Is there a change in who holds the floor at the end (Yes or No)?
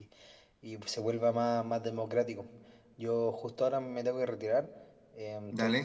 No